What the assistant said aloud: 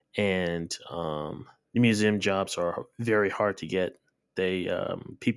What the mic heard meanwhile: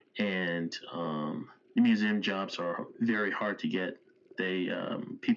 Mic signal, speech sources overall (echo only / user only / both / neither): echo only